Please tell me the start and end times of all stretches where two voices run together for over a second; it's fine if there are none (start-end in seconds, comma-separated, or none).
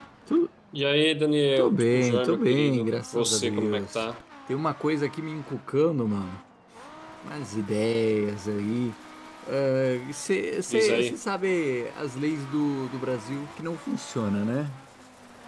1.6-4.0